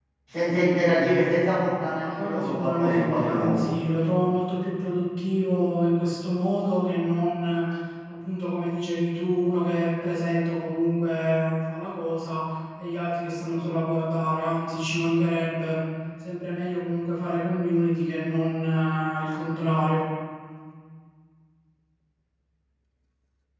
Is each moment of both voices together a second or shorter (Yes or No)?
No